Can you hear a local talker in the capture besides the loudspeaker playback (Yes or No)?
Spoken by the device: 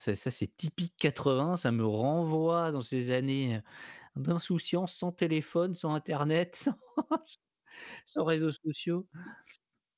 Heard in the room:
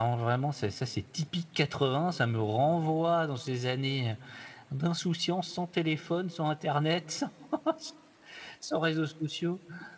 No